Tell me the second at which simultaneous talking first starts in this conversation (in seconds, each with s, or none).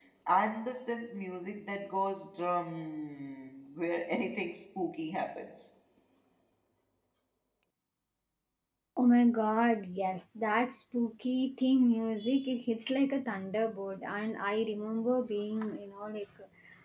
none